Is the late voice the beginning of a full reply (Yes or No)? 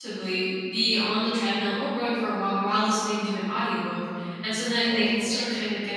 No